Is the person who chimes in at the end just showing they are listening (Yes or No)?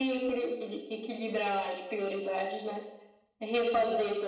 Yes